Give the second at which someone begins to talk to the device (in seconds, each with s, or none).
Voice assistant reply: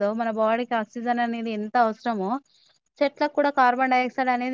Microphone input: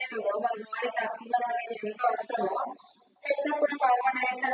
none